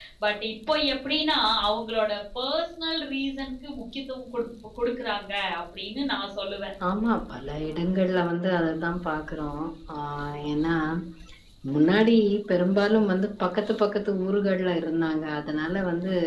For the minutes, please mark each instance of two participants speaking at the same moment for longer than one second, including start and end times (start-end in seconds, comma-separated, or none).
none